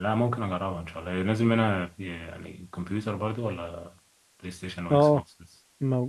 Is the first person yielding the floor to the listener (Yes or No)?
Yes